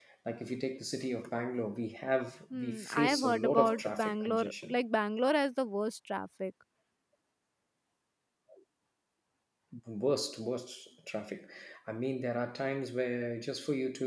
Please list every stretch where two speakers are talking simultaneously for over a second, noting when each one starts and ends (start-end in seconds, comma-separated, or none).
2.5-4.8